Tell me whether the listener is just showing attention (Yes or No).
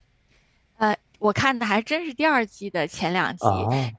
Yes